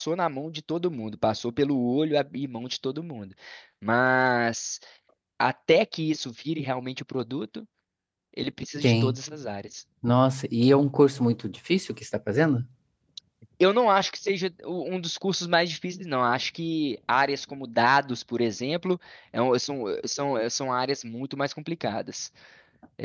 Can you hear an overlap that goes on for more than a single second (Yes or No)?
No